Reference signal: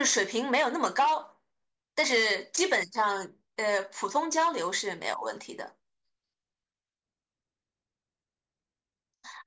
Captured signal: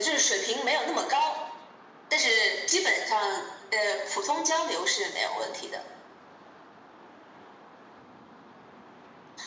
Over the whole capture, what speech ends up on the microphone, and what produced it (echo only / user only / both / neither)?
echo only